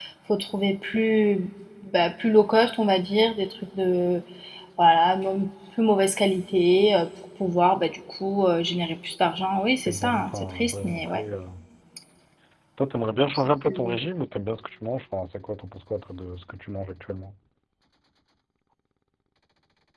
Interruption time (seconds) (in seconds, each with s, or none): 9.9 s